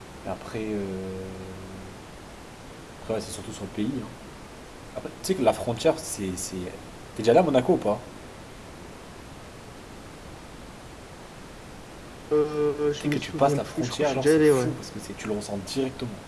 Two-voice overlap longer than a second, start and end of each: 13.0-14.7

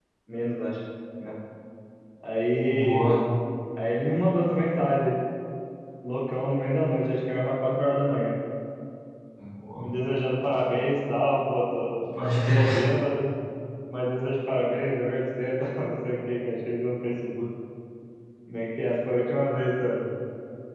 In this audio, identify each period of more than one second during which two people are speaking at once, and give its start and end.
none

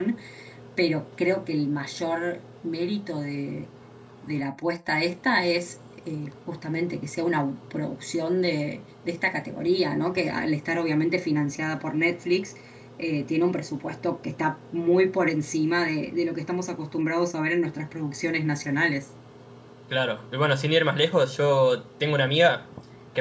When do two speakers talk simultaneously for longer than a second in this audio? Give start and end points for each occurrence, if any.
none

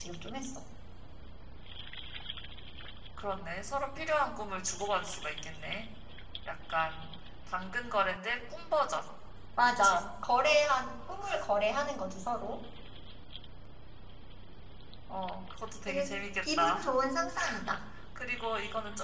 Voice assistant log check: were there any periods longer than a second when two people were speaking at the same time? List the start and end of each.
none

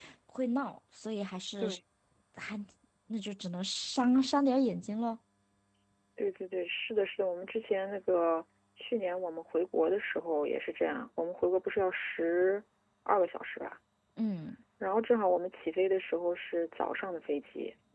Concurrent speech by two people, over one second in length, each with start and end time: none

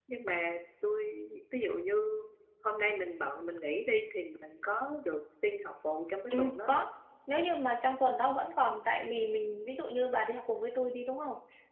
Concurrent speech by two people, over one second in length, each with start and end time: none

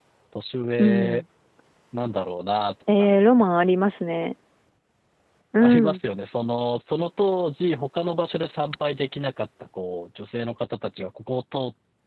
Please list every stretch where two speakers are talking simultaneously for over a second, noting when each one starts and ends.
none

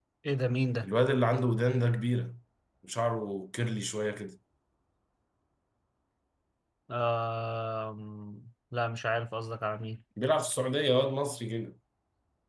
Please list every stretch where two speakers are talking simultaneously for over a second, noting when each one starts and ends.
none

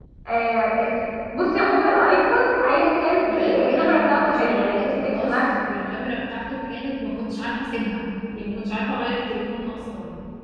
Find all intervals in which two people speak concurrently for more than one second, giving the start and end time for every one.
3.3-5.3

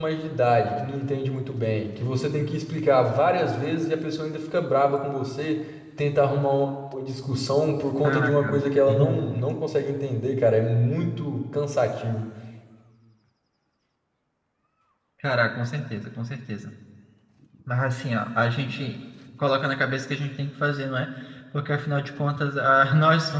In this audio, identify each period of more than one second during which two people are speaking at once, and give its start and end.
8.0-9.4

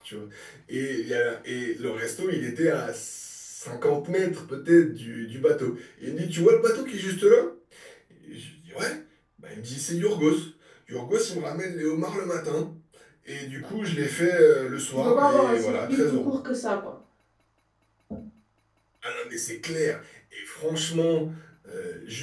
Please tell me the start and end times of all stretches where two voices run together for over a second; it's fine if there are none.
14.9-16.3

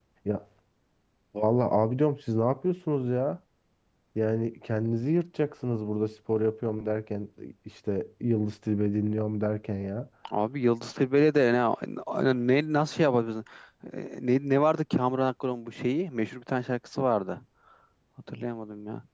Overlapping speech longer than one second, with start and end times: none

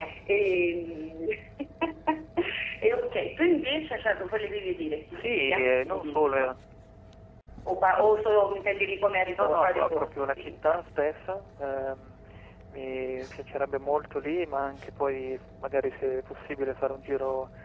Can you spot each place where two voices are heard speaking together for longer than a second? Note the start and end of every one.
5.1-6.5, 9.3-10.8

